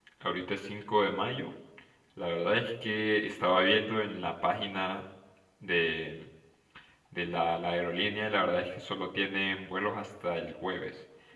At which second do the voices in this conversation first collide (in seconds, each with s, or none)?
none